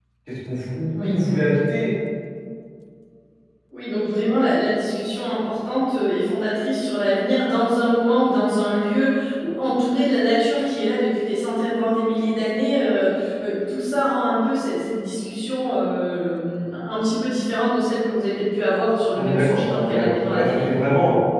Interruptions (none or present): present